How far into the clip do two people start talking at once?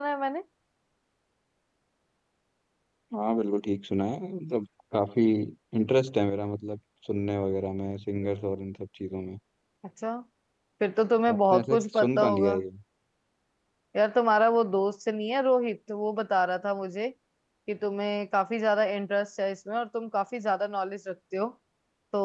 11.3 s

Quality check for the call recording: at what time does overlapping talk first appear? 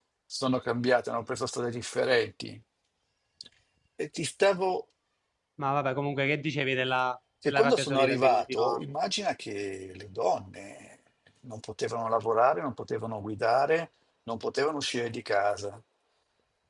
7.4 s

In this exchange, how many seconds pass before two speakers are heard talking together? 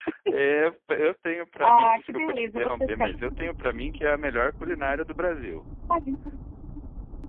1.6 s

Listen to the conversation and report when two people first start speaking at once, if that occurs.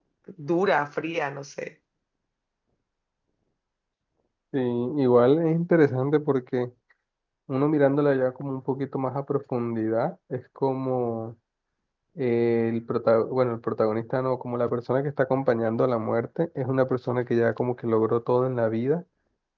none

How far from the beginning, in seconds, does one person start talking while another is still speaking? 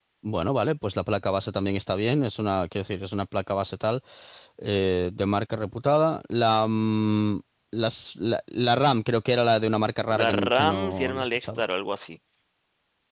10.1 s

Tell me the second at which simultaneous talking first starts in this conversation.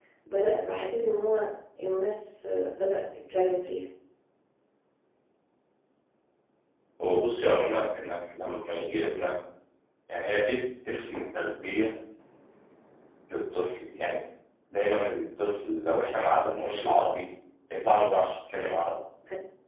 none

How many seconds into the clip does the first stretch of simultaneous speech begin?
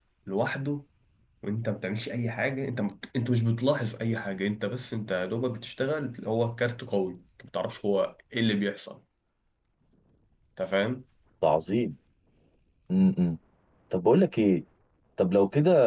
none

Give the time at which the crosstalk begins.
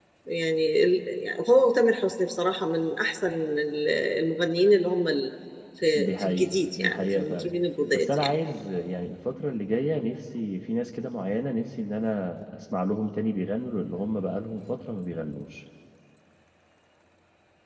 6.0 s

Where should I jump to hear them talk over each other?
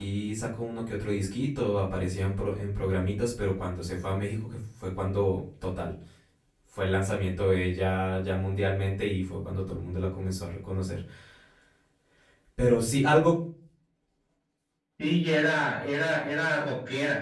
none

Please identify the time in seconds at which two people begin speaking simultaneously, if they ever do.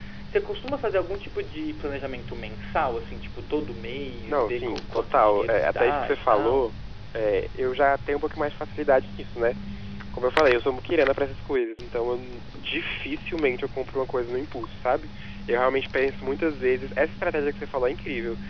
4.3 s

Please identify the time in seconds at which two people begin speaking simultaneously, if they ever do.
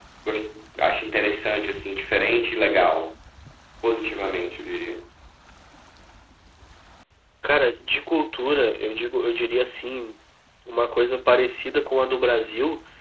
none

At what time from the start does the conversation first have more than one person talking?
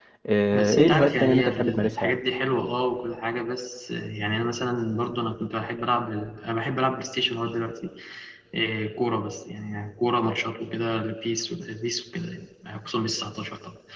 0.5 s

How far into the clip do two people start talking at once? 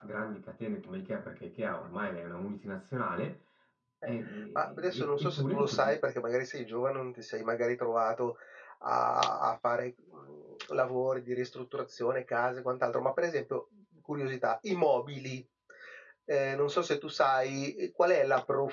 4.6 s

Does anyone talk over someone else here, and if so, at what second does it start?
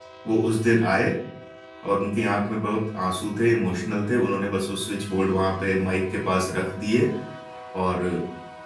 none

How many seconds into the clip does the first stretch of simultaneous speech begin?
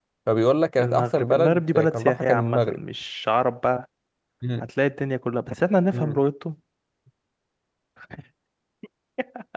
0.8 s

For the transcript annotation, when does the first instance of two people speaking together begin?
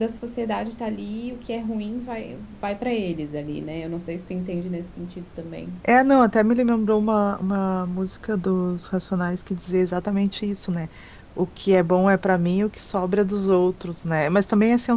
none

